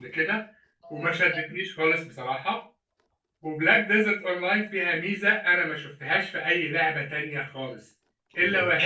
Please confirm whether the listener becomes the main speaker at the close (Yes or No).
No